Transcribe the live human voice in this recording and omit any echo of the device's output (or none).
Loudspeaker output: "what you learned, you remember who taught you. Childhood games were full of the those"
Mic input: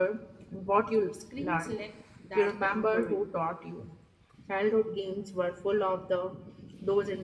Screens lack that the inquiry.